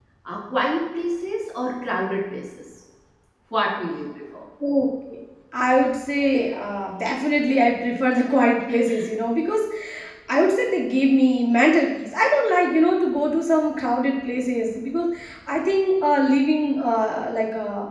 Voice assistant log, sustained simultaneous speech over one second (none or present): none